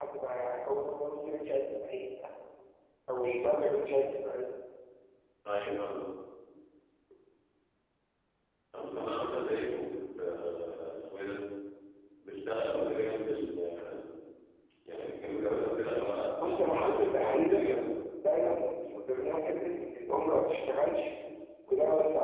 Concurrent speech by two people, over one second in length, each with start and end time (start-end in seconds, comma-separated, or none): 16.4-17.6